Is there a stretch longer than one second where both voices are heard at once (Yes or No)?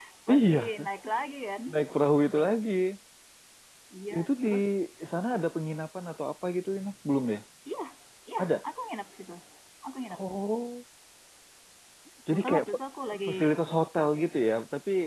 No